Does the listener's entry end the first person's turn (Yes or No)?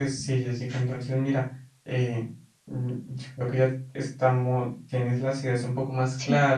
No